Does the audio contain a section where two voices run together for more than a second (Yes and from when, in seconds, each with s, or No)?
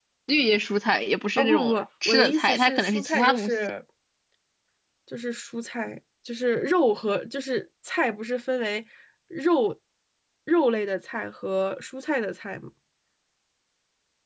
Yes, from 1.4 s